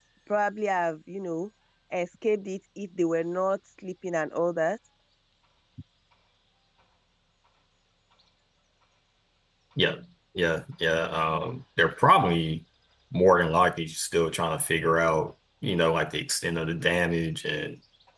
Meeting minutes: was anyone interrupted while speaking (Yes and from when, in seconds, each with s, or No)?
No